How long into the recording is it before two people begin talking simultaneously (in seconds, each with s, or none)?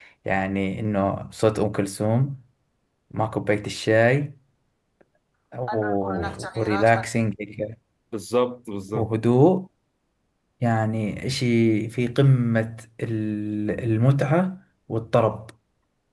5.7 s